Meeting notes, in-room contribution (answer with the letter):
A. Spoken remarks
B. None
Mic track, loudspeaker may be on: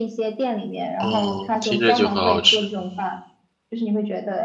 A